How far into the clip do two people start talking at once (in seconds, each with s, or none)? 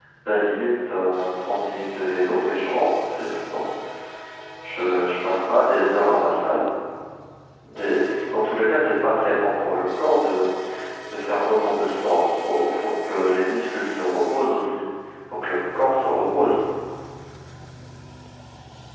none